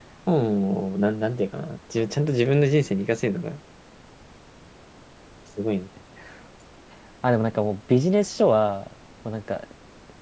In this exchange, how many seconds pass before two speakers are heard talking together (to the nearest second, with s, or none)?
none